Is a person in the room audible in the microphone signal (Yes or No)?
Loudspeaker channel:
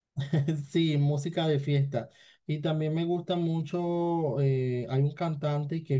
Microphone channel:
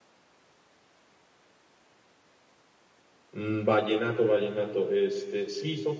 Yes